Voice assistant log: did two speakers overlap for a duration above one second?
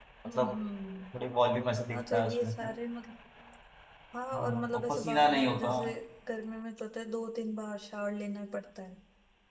Yes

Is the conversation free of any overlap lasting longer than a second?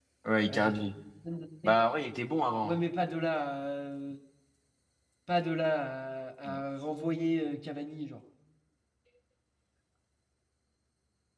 Yes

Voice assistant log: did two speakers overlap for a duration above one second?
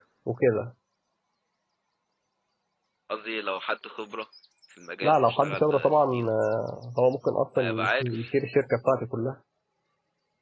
Yes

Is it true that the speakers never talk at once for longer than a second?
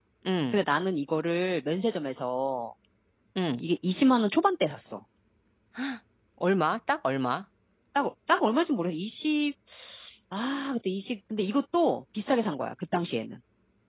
Yes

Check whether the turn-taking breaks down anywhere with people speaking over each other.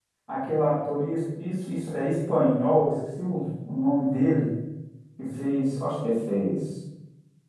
No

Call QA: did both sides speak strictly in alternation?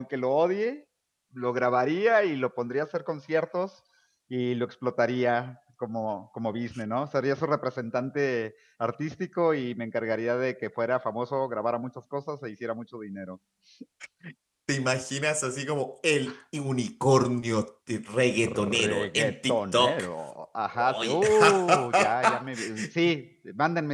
No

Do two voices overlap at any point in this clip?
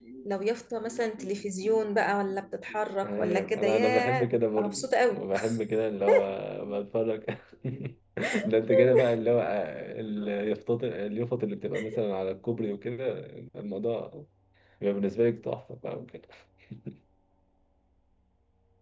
Yes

